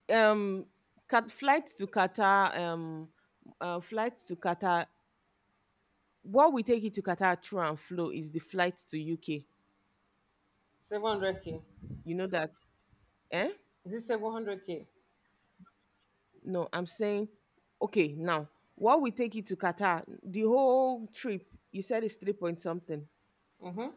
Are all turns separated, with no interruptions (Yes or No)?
Yes